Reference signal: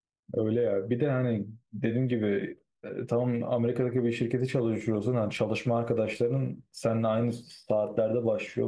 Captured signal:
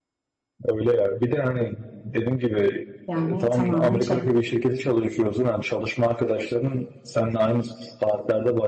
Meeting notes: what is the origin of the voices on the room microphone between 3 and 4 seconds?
both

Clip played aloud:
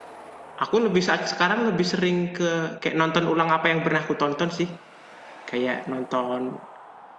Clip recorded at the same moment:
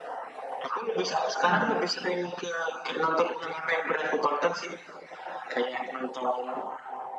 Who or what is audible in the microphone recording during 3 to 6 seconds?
echo only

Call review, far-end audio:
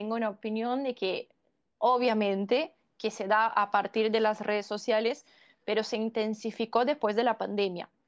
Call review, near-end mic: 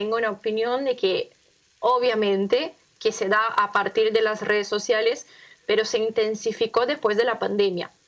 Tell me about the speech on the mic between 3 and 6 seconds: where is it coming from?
echo only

